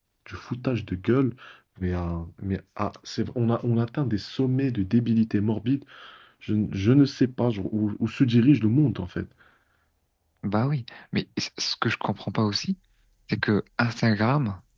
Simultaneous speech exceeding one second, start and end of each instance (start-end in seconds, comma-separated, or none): none